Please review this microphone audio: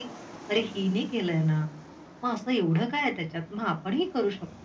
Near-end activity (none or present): none